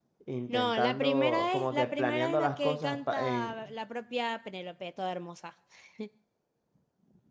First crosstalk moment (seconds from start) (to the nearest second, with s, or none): 1 s